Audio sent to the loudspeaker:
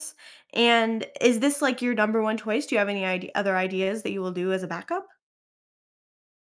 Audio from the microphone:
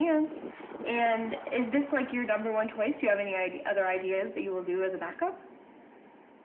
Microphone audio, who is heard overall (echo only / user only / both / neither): echo only